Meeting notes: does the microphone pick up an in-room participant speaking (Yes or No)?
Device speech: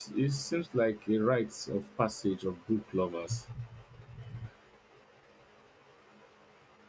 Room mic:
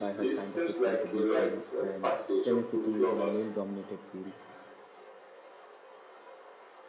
Yes